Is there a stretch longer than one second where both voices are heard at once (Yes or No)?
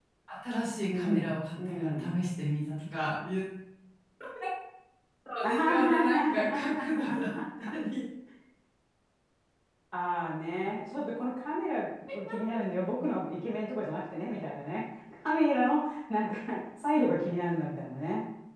Yes